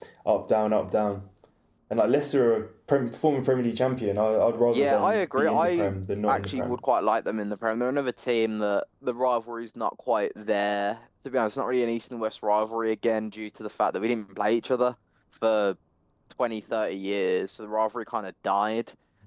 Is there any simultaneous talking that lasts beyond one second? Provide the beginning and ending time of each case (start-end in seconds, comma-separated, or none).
4.7-5.9